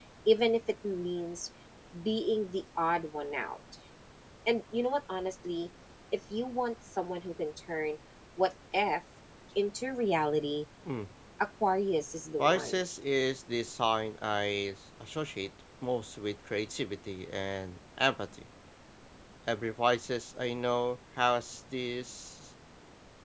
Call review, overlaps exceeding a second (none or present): none